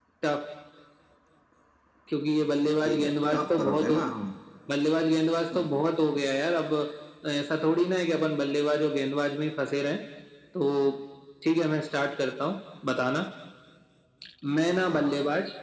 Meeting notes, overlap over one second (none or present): present